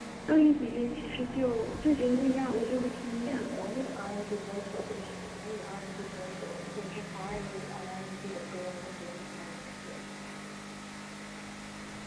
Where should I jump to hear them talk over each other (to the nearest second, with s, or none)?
2 s